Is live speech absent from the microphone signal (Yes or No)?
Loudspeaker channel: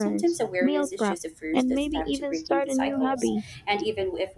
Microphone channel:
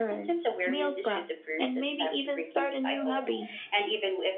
Yes